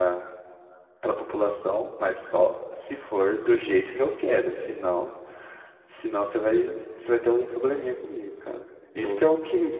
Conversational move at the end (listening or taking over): listening